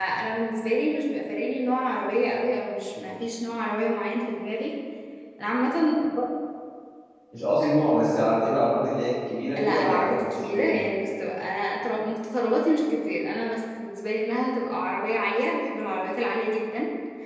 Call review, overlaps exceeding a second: present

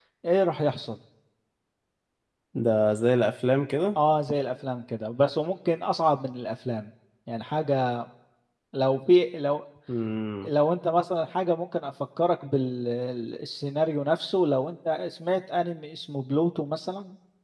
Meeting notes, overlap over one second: none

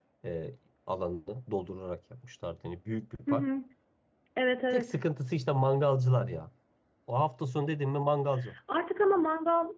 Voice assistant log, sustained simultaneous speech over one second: none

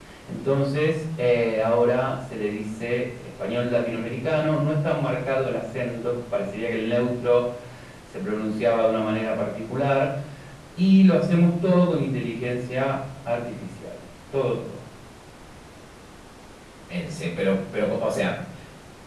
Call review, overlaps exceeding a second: none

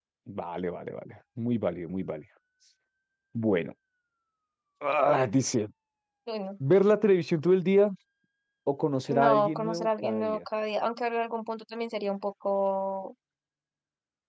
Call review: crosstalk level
present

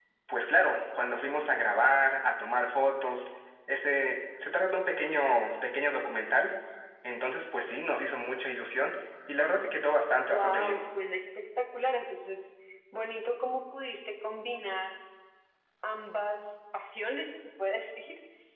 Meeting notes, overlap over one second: none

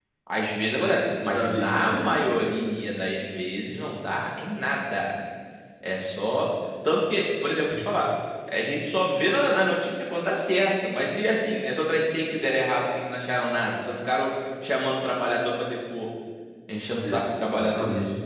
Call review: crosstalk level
present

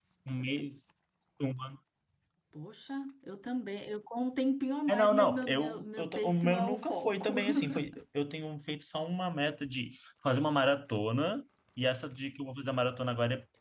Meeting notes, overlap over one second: present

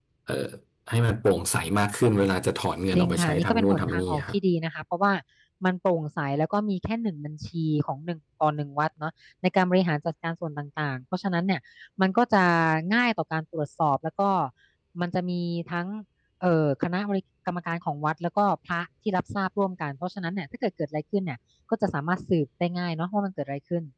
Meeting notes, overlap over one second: present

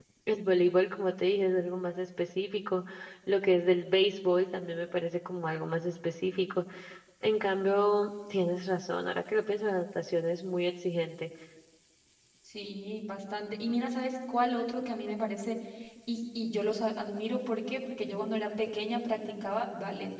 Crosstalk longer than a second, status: none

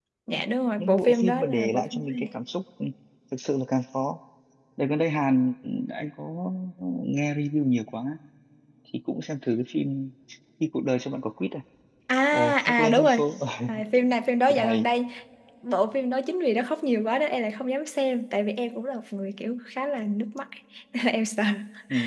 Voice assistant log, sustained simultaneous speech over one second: present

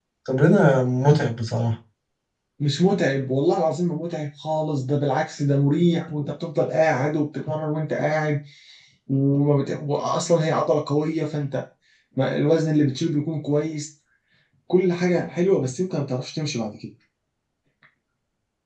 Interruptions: none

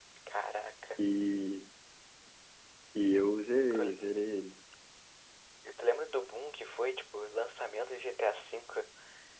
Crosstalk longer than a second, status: none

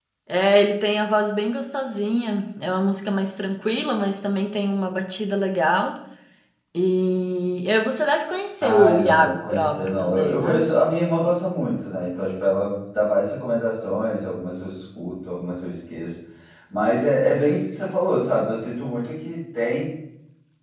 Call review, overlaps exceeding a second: present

